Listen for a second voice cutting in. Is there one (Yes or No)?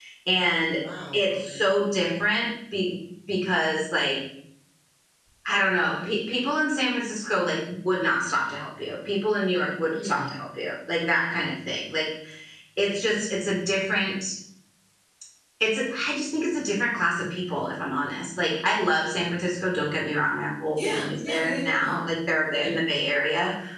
Yes